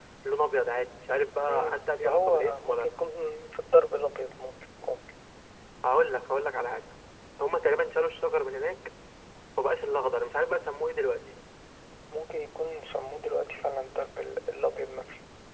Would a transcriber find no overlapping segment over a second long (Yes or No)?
No